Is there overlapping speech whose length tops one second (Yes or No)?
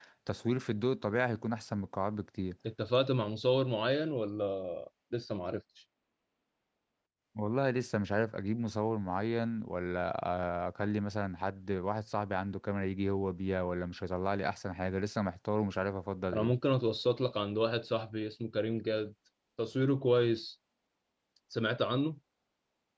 No